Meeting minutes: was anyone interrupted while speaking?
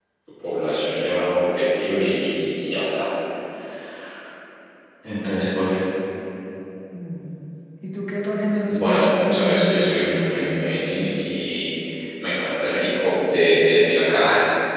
Yes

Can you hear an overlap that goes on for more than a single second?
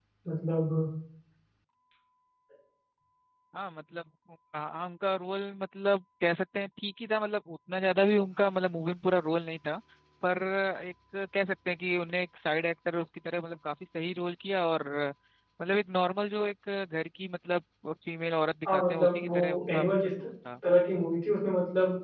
Yes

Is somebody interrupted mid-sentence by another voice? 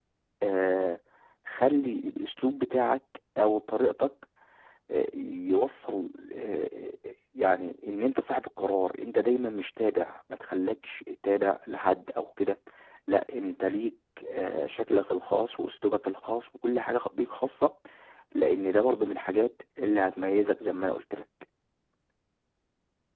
No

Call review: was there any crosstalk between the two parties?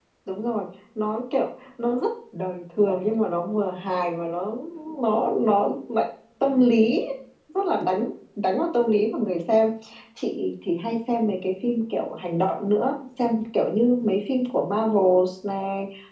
No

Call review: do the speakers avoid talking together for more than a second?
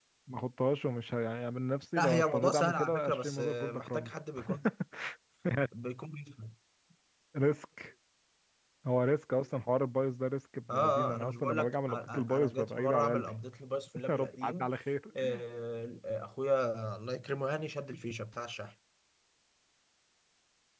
No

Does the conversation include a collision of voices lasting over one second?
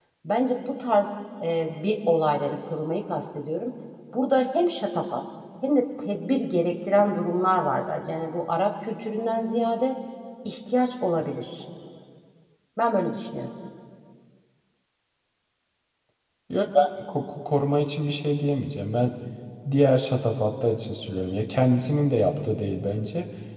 No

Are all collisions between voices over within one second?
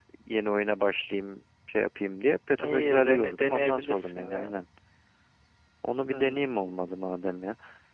No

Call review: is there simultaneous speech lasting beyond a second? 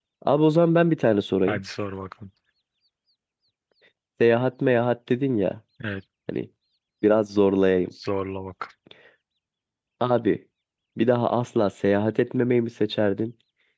No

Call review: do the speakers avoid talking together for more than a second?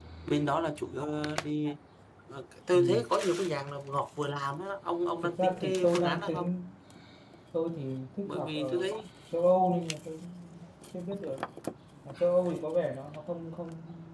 No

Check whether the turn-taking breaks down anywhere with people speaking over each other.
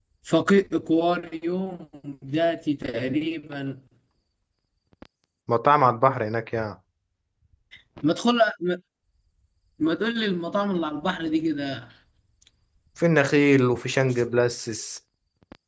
No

